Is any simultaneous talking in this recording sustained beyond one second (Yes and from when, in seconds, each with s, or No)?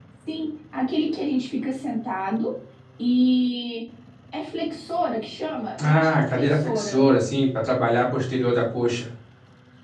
Yes, from 5.8 s